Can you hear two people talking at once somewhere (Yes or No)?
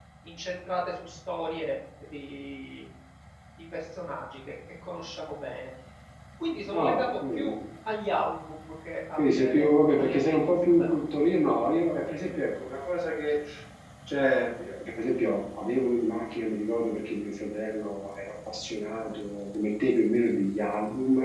Yes